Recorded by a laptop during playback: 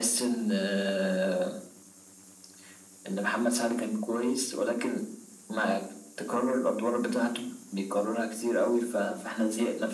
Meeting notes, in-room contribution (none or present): none